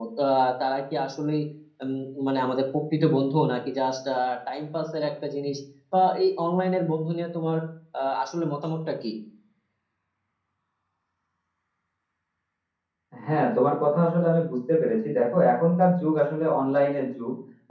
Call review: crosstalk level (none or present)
none